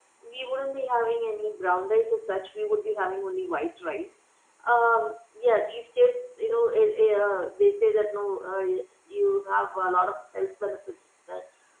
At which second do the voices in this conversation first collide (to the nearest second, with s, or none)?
none